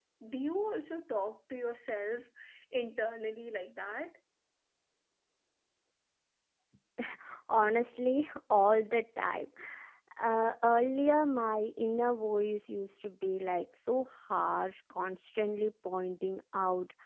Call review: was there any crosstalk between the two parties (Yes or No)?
No